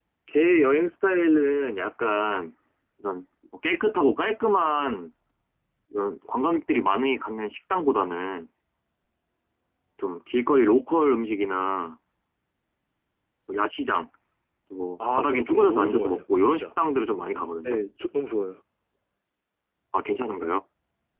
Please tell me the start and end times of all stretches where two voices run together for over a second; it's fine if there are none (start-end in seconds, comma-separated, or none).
15.1-16.6